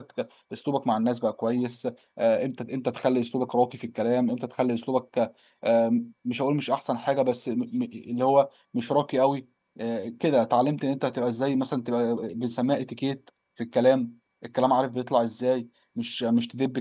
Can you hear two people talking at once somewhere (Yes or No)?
No